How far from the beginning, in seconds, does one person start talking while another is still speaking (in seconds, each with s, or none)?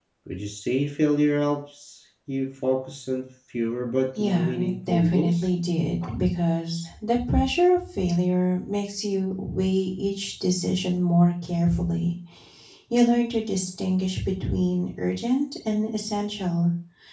4.2 s